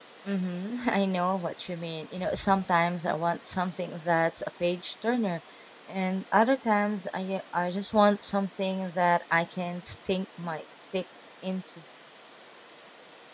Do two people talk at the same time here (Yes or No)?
No